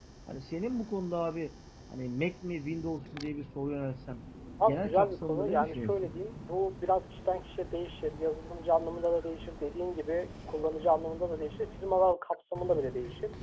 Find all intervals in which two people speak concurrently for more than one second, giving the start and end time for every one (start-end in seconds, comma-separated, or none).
4.7-6.1